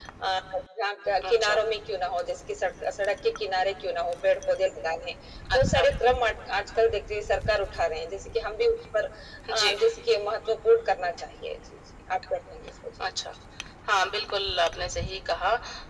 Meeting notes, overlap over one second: none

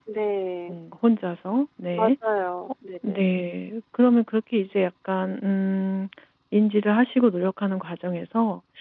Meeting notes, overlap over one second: none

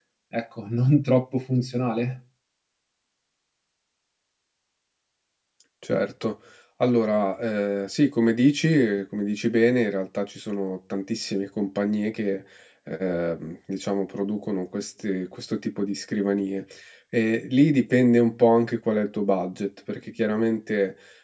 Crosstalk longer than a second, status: none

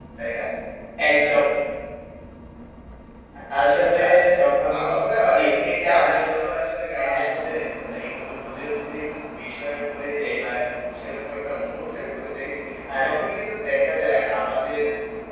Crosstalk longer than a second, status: none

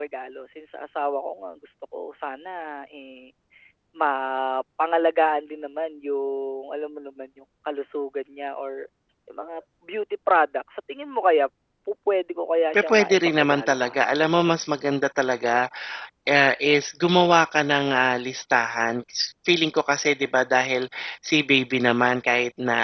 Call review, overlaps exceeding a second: present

